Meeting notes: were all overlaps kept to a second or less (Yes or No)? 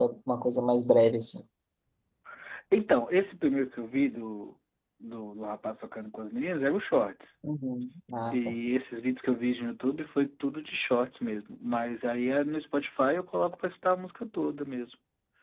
Yes